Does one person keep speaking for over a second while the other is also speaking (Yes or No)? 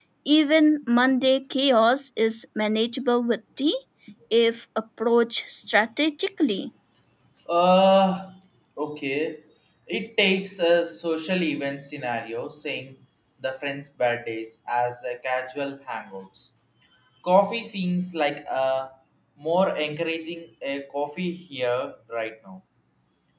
No